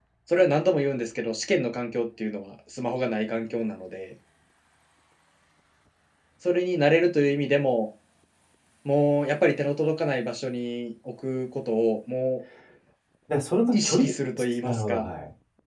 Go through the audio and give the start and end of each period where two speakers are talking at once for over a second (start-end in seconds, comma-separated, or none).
13.7-15.1